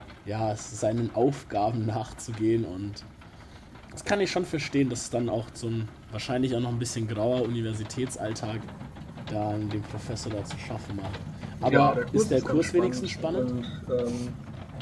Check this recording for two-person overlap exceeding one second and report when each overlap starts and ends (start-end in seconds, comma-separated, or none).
11.7-13.5